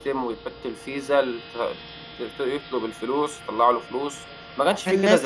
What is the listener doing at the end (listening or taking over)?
taking over